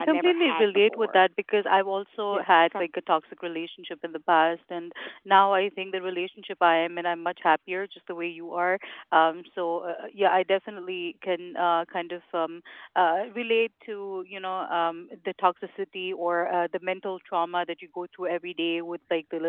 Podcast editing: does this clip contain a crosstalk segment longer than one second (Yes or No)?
Yes